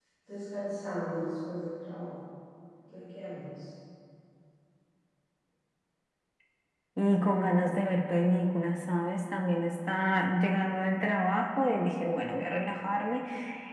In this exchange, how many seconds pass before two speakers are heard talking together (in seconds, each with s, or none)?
none